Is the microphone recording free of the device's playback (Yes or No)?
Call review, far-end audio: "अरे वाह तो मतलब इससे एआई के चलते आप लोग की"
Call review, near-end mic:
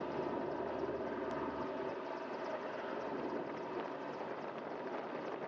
Yes